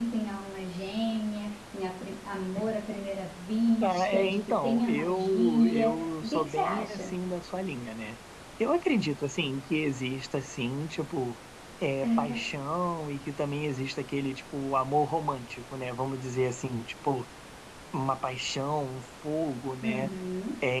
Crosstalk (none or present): present